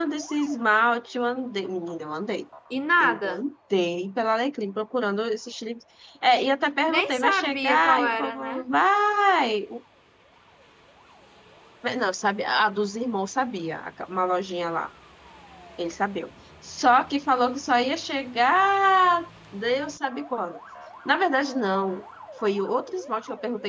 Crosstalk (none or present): present